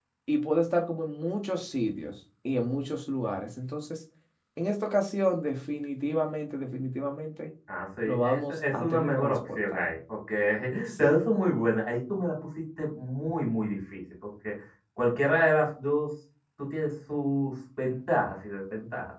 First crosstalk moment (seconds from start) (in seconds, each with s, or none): 8.1 s